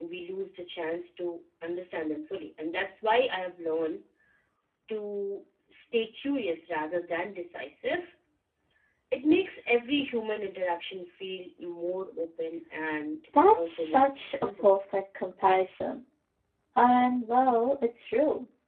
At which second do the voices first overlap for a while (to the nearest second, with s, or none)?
13 s